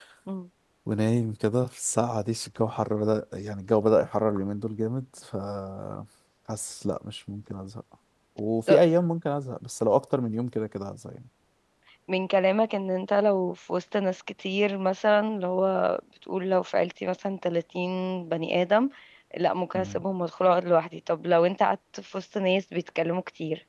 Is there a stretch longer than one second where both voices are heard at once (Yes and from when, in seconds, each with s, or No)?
No